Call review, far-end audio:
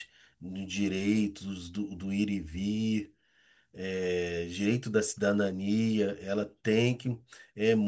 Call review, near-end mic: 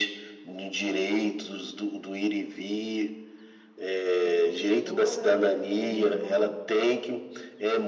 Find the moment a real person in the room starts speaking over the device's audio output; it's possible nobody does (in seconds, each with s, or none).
4.1 s